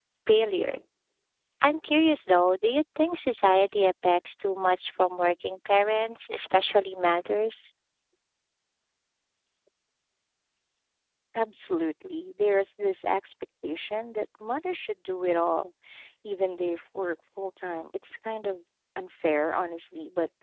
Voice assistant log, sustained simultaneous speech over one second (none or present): none